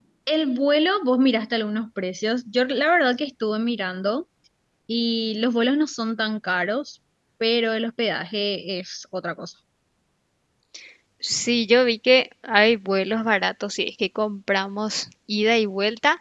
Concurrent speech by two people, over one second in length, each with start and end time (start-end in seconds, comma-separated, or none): none